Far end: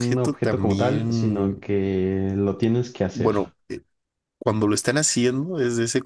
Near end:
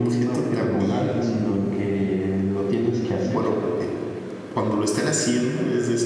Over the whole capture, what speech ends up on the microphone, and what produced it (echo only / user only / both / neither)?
echo only